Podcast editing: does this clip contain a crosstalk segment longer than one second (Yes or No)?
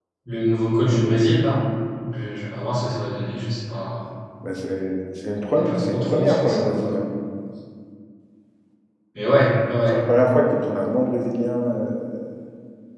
Yes